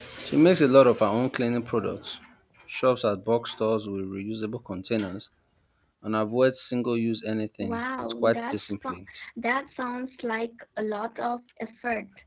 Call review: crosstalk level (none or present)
present